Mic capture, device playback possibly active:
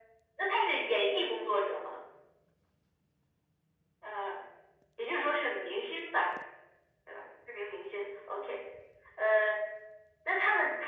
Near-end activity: none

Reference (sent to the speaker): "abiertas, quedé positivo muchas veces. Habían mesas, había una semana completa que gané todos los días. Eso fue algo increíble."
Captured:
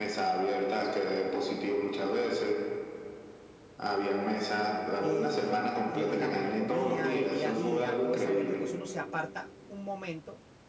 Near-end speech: present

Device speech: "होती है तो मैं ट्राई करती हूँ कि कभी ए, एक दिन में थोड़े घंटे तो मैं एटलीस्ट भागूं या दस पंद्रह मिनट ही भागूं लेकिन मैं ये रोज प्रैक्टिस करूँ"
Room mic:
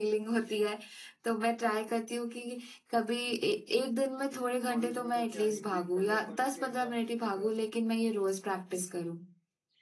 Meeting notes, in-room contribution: present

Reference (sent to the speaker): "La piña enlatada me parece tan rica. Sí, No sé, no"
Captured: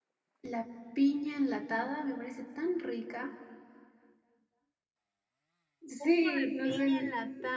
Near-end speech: present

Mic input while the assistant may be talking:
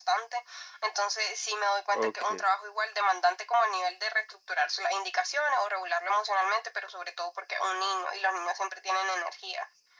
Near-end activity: present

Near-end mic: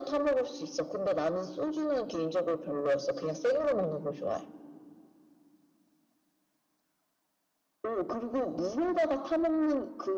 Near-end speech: none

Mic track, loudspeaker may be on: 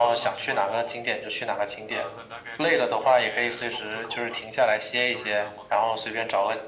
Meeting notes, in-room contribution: present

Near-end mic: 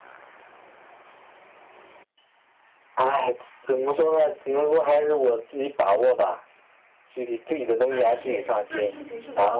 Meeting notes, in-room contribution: present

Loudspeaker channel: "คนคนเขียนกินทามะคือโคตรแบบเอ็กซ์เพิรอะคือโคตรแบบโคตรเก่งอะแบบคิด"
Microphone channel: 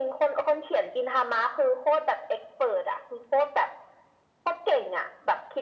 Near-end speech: none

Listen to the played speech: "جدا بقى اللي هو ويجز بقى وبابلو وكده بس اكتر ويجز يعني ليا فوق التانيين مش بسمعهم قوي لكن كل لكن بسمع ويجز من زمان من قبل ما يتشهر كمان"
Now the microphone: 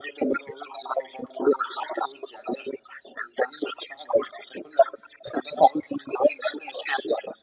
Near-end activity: none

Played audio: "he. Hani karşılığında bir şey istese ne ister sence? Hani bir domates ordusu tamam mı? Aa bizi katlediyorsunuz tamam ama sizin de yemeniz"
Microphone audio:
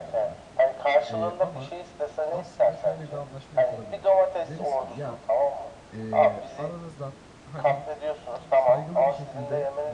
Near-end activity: present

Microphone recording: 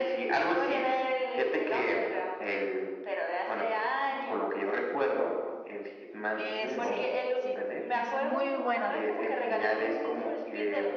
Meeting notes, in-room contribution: present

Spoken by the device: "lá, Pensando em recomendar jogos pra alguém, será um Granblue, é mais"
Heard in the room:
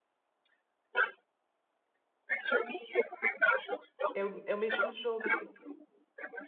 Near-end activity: present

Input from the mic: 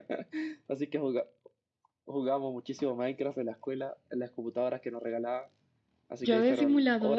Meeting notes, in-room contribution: present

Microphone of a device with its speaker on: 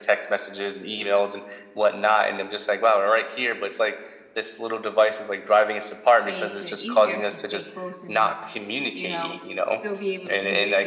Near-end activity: present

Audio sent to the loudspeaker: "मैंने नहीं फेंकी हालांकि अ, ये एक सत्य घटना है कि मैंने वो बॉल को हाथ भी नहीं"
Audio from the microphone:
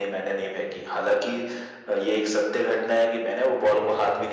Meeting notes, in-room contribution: none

